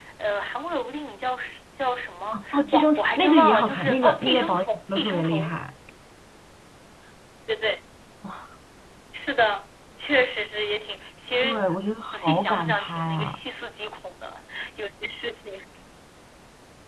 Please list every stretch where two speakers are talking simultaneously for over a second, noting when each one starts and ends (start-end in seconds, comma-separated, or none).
2.5-5.5, 12.1-13.4